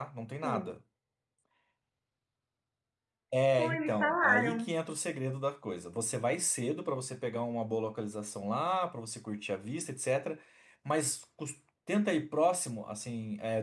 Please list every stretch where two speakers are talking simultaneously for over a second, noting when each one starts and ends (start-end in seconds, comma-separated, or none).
3.5-4.7